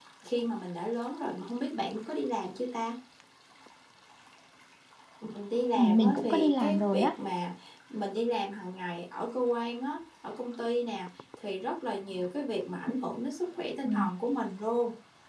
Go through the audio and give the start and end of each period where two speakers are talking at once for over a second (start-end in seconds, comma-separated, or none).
5.8-7.1